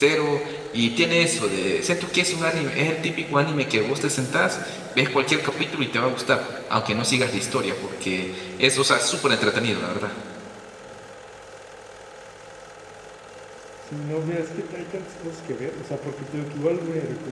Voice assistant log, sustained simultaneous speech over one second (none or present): none